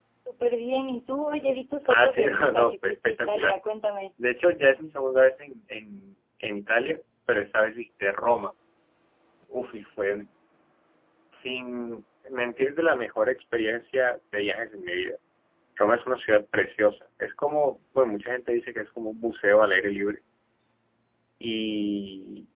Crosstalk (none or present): present